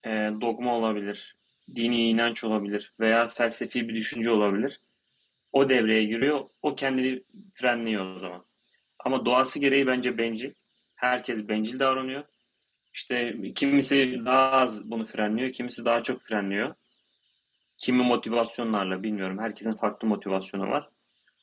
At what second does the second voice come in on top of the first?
none

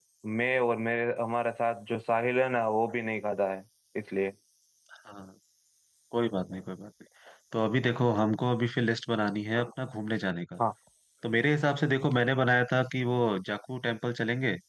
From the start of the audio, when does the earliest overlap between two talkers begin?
none

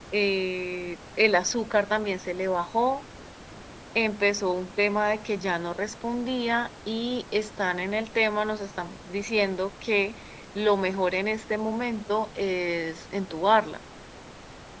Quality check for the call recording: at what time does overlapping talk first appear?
none

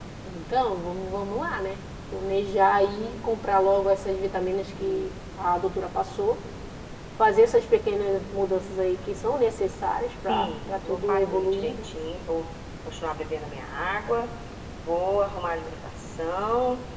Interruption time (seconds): 10.3 s

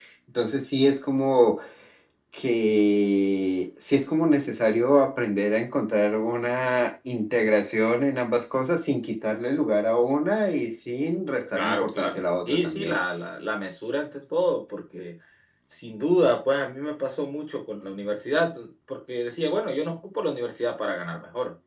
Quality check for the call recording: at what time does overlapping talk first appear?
11.6 s

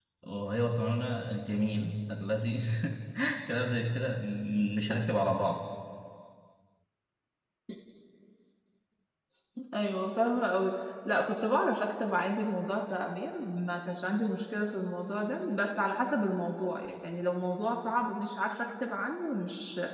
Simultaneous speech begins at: none

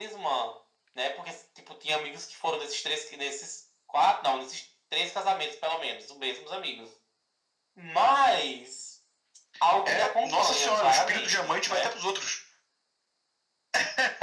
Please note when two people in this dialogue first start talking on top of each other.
9.8 s

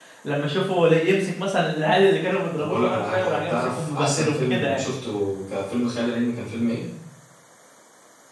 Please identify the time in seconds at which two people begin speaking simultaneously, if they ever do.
2.5 s

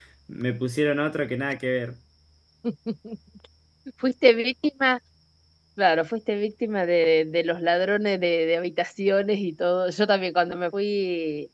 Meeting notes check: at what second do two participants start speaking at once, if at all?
none

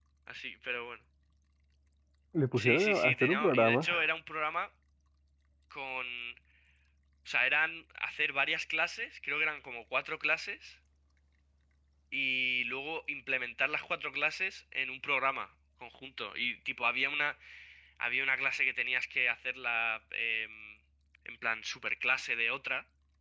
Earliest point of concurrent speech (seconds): 2.5 s

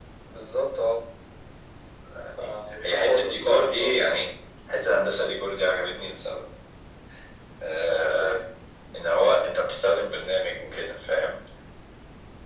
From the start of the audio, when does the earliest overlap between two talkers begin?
2.4 s

